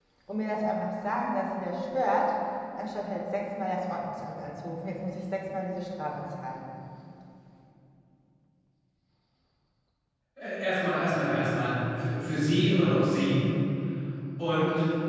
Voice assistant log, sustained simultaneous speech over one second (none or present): none